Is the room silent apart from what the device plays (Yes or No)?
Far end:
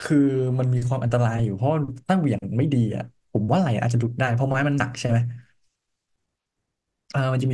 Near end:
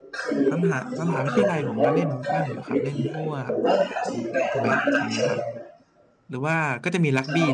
No